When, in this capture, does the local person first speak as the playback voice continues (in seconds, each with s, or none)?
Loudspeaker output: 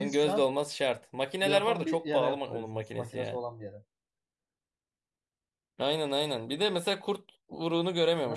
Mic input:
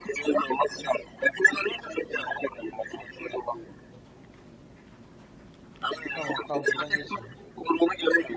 6.1 s